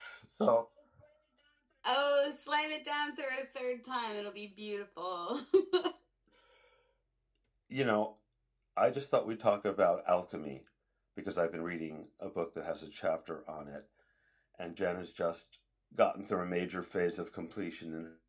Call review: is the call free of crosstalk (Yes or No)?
Yes